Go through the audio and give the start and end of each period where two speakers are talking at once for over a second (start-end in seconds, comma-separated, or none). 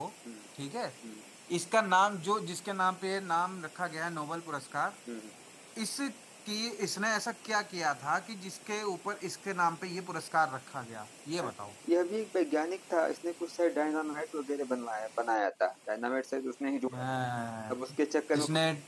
none